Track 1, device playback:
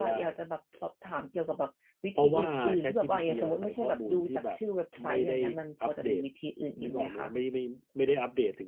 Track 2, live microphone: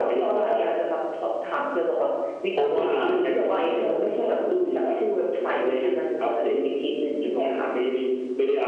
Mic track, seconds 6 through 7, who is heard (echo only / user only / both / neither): echo only